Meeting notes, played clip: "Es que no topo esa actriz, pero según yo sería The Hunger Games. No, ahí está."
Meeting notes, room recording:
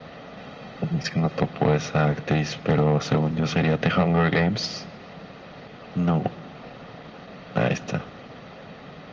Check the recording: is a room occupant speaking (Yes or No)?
No